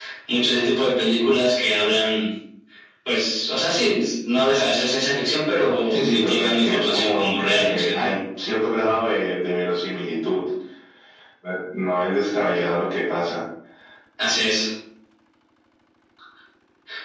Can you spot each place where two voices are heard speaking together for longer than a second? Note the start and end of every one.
5.9-8.1

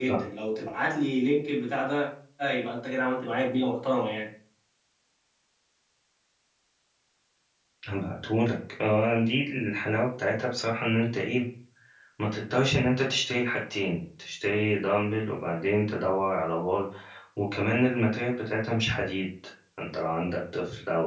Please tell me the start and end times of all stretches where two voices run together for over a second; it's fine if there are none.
none

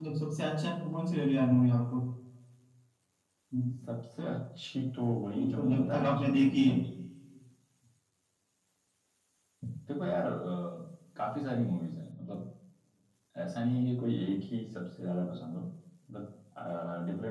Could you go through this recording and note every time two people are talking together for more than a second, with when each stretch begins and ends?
5.4-6.8

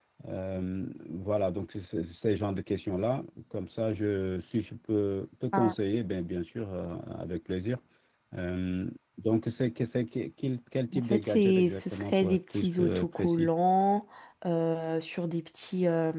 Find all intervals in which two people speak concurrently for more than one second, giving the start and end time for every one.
10.9-13.5

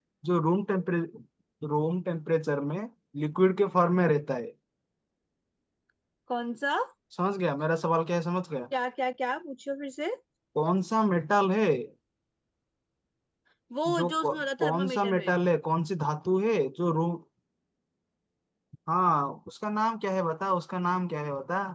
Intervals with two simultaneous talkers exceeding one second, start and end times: 14.0-15.3

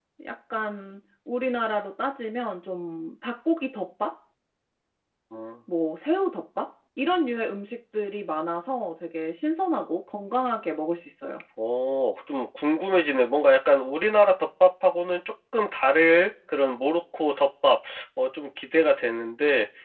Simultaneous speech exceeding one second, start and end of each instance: none

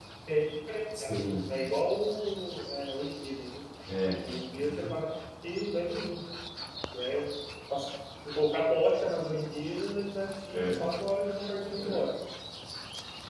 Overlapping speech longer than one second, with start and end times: none

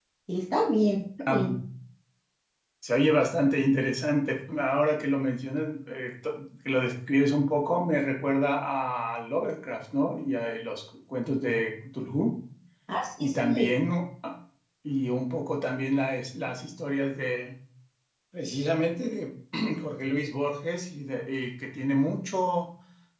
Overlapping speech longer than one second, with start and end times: none

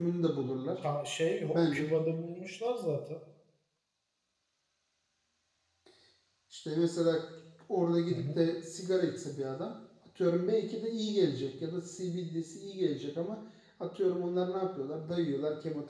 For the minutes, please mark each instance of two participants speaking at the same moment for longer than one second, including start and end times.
none

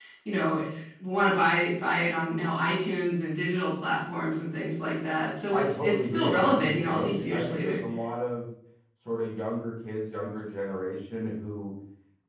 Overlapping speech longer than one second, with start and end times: 5.5-7.8

